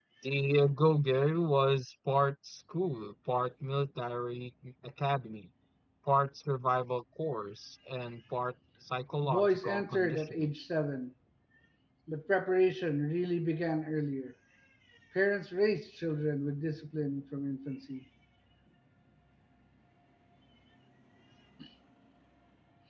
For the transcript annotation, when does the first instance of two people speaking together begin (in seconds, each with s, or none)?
9.2 s